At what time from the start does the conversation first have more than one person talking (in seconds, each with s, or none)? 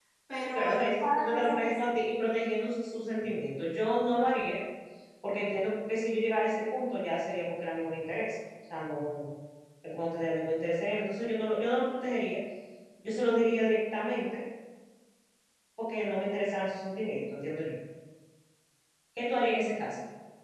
0.6 s